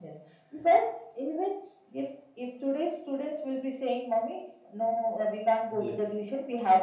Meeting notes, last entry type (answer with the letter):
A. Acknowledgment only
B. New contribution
A